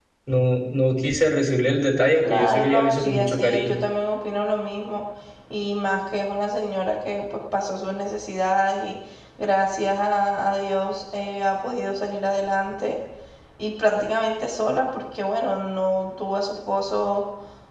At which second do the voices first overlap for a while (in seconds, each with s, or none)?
2.2 s